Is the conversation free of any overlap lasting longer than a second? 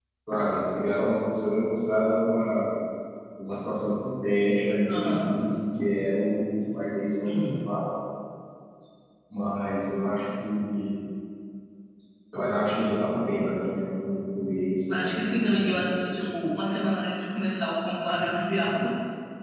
No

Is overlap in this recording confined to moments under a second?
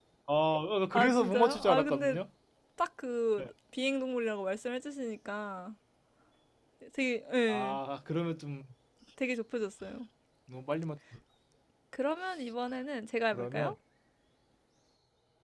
No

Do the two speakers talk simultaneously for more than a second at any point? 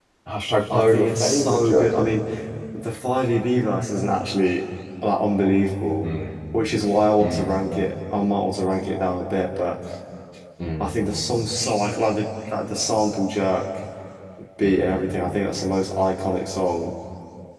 Yes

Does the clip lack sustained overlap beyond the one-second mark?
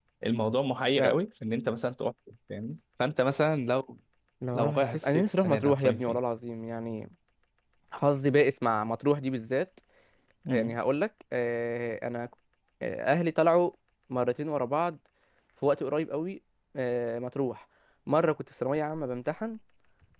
No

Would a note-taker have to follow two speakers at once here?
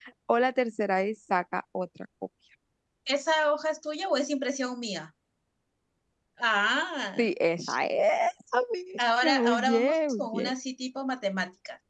Yes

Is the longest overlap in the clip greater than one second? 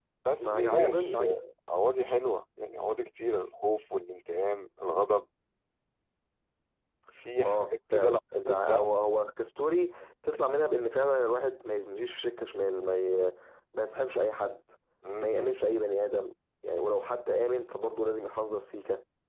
Yes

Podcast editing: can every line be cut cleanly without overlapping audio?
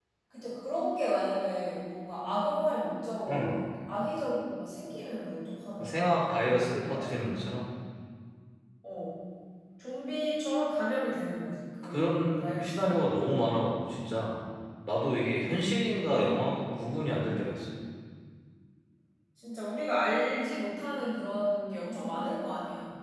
No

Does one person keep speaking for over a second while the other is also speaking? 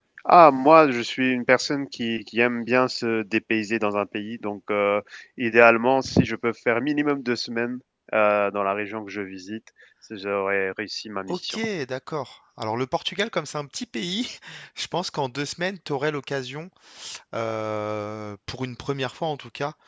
No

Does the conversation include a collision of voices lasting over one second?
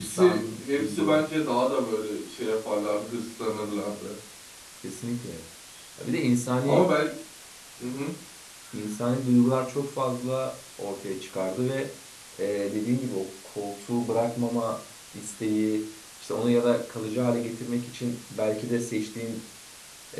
Yes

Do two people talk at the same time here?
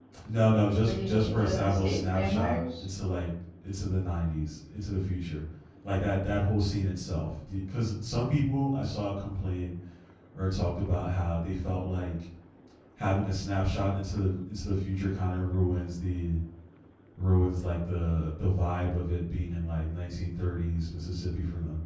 Yes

